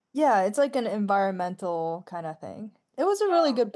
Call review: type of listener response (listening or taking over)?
listening